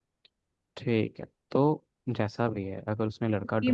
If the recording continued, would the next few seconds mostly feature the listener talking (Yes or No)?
Yes